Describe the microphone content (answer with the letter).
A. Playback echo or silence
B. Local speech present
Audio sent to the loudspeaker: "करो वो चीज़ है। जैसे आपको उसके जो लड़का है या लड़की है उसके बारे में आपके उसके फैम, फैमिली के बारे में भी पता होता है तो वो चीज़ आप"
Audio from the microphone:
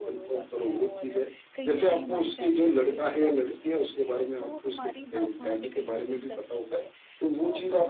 B